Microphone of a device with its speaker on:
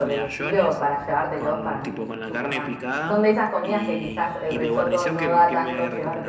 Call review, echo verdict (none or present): present